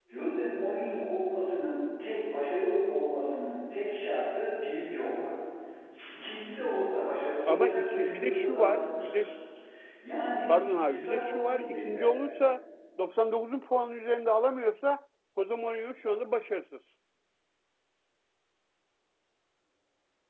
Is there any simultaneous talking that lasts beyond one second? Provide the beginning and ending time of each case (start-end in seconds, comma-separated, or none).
7.5-9.3, 10.9-12.1